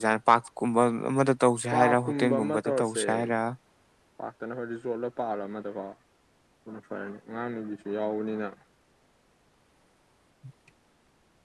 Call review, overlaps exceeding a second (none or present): present